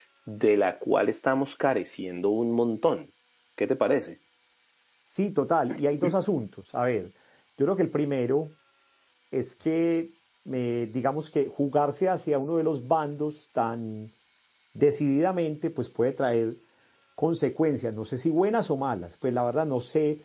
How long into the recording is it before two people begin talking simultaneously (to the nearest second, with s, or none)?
none